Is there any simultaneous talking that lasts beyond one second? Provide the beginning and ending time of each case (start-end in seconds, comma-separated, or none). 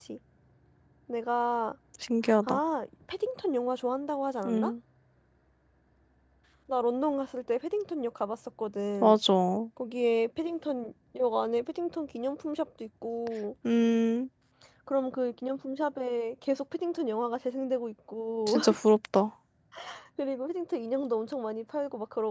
none